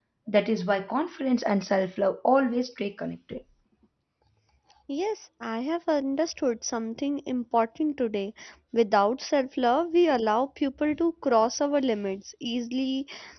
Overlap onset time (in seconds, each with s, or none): none